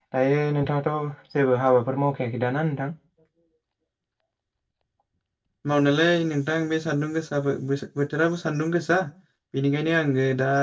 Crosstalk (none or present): none